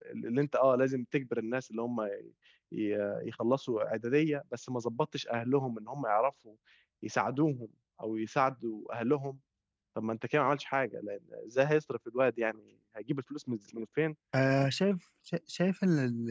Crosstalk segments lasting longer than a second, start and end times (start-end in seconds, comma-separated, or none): none